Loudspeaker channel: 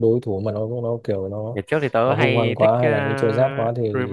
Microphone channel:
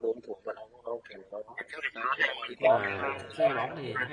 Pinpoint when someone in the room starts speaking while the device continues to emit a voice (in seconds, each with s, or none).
2.6 s